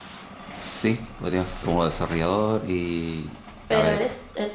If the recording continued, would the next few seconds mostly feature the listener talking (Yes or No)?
Yes